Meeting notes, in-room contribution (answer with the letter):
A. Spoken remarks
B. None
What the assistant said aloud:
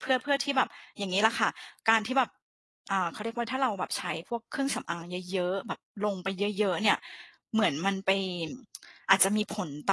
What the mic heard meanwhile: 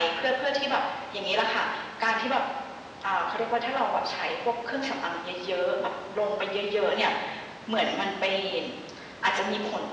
B